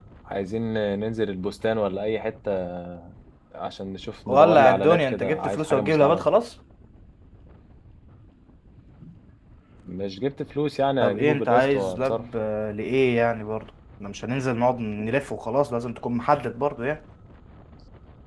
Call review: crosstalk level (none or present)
present